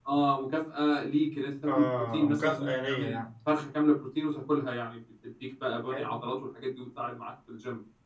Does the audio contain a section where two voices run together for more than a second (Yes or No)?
Yes